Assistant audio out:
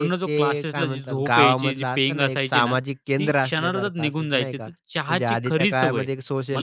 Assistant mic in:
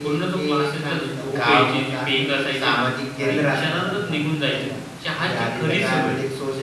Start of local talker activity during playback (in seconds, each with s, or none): 3.3 s